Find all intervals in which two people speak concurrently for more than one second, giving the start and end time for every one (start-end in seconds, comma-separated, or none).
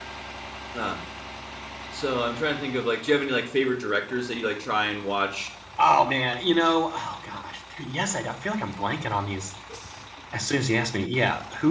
none